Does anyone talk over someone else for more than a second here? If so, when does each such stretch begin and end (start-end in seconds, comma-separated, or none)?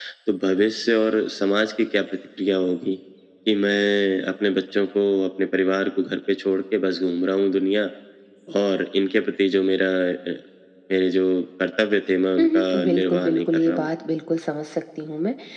12.4-13.9